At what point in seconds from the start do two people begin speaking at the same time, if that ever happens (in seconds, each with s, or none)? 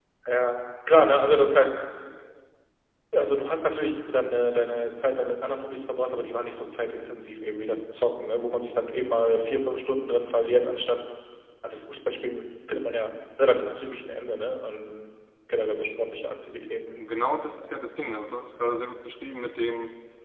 none